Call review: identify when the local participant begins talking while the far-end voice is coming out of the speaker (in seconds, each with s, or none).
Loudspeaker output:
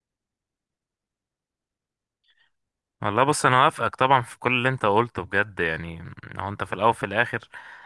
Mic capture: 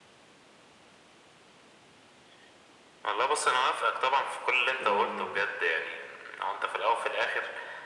4.8 s